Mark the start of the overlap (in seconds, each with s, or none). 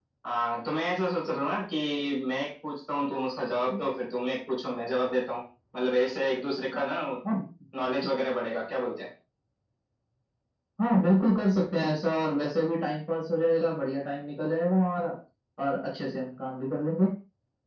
none